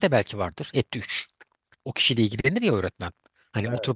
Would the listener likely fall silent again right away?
Yes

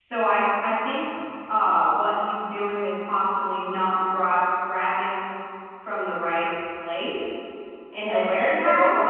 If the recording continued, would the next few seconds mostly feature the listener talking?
Yes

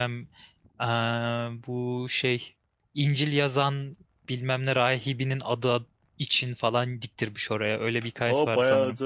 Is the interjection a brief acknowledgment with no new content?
No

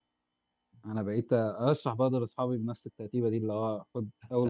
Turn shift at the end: Yes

